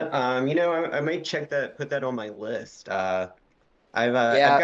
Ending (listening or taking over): taking over